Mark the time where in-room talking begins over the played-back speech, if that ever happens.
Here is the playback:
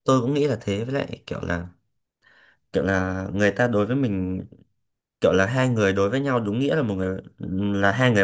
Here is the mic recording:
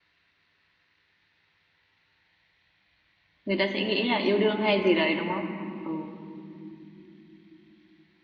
3.5 s

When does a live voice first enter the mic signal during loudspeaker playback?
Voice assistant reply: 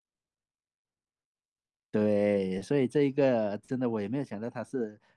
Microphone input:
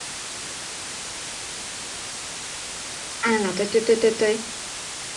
3.2 s

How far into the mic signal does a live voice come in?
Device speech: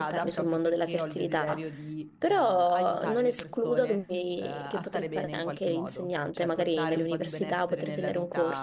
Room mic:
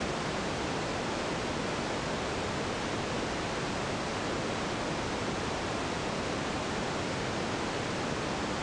none

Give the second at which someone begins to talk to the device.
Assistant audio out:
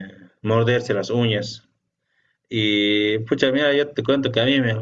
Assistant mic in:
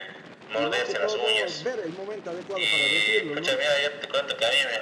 0.5 s

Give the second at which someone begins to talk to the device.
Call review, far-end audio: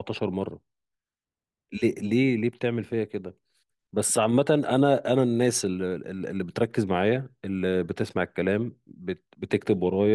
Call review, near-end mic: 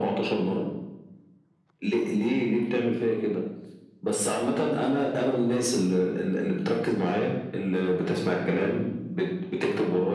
none

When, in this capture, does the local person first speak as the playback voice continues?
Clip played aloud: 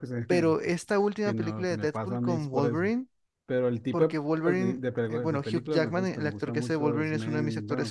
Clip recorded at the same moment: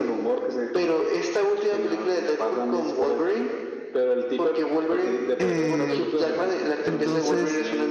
5.4 s

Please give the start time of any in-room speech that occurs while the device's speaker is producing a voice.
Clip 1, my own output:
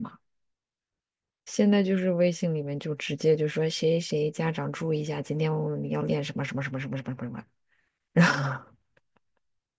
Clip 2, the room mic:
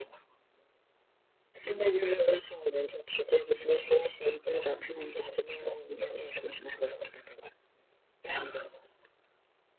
none

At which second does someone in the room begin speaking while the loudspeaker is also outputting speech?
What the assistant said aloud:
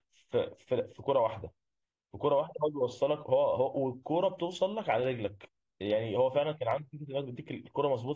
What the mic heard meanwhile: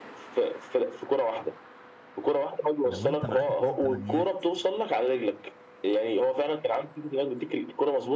2.8 s

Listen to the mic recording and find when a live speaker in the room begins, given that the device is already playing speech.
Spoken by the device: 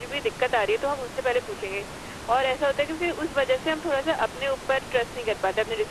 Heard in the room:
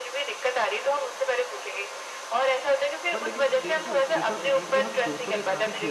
3.1 s

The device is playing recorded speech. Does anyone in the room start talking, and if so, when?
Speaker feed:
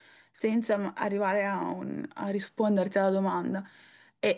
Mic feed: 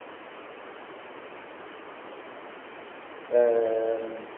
3.3 s

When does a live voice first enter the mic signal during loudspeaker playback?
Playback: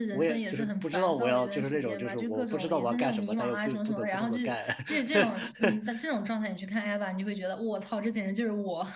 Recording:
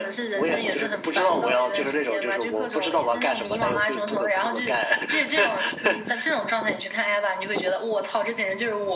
none

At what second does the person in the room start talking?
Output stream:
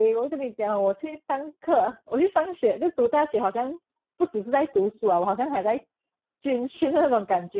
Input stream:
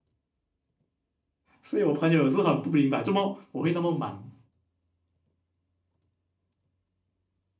1.6 s

